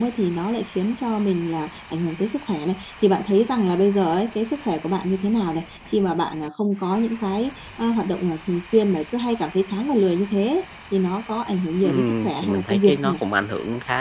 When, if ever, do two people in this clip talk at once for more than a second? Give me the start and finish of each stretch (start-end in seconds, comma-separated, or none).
11.8-13.1